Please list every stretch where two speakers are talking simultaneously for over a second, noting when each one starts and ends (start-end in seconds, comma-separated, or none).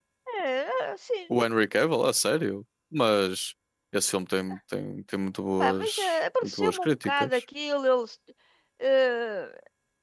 5.6-7.4